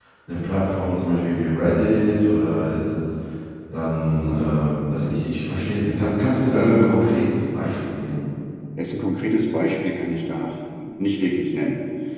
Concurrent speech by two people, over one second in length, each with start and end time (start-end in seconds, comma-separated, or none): none